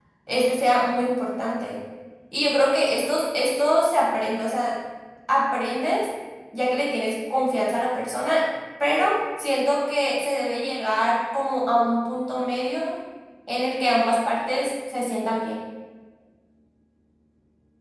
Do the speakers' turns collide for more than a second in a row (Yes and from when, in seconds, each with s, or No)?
No